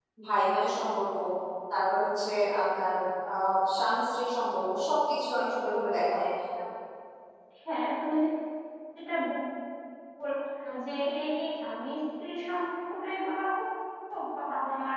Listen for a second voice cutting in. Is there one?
No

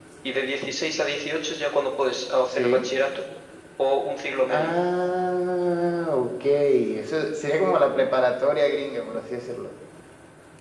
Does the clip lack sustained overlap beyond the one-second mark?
Yes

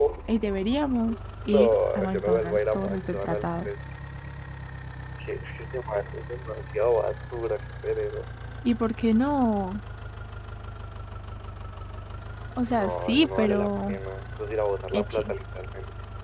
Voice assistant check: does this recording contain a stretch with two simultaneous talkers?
Yes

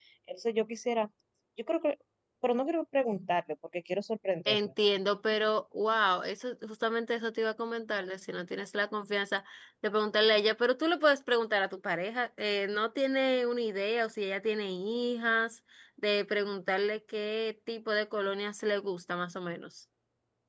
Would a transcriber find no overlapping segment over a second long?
Yes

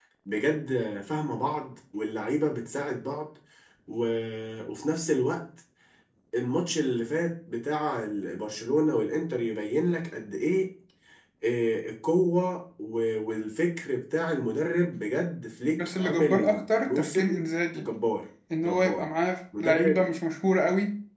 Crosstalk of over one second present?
Yes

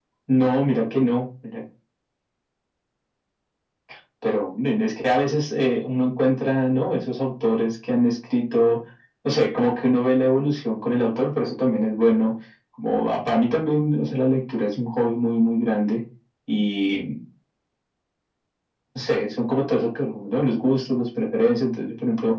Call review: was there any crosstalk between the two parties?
No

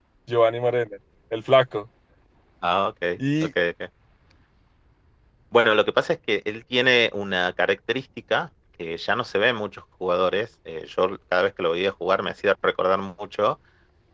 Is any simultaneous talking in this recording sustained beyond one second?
No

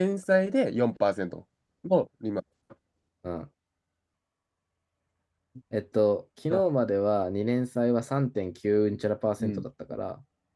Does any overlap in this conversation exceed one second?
No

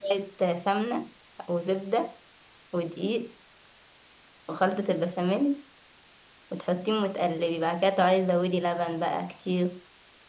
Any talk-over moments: No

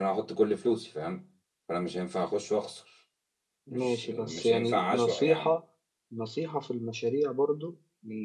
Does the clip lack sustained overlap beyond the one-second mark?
No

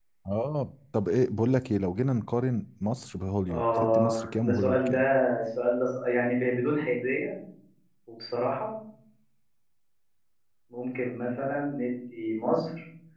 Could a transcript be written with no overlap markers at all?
No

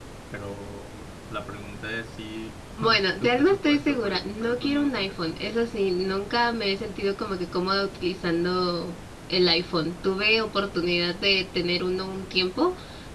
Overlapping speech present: Yes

